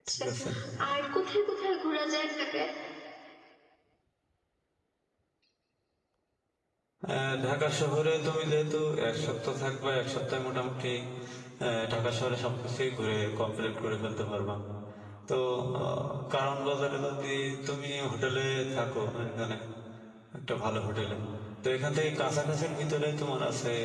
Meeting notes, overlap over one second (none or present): none